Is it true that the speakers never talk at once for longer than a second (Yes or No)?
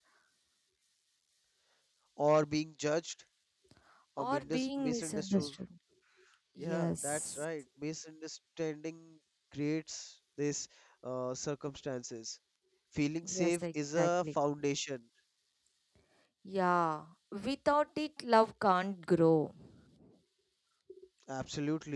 No